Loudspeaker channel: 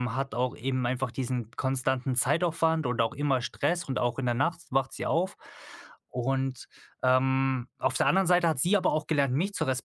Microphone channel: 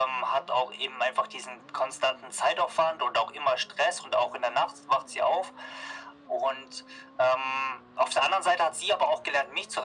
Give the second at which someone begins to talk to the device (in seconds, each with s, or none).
none